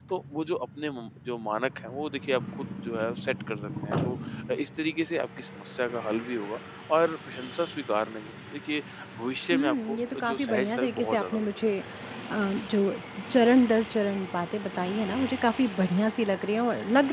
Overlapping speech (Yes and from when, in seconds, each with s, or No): Yes, from 9.5 s